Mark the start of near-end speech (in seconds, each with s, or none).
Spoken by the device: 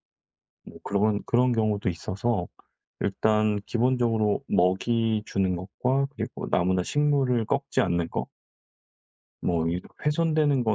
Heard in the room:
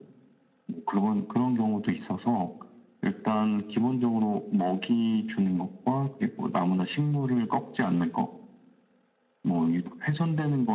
none